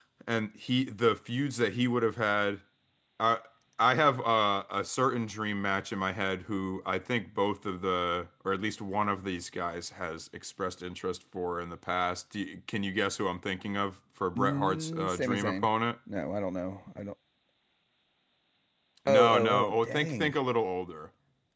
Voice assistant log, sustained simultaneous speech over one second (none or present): present